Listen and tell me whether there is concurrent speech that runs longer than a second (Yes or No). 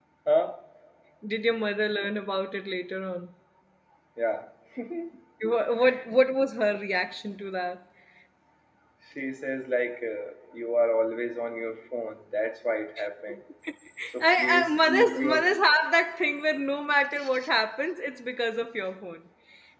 Yes